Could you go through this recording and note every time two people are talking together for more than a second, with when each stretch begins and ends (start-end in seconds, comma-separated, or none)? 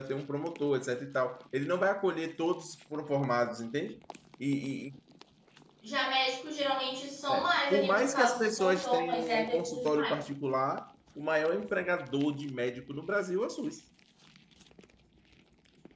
7.3-10.2